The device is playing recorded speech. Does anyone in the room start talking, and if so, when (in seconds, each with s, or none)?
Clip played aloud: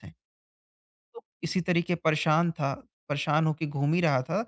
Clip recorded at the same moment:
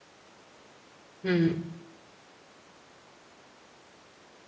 1.2 s